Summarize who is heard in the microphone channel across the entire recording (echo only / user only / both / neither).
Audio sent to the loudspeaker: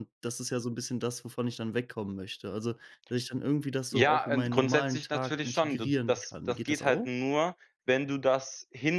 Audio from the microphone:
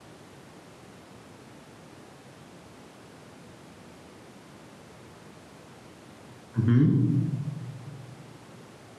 user only